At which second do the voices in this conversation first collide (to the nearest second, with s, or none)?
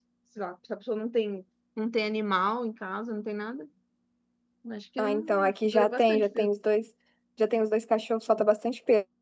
5 s